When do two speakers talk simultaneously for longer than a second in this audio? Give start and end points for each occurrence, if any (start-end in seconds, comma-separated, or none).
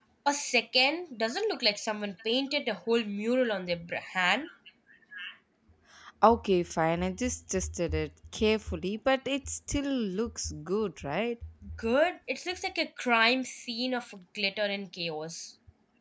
none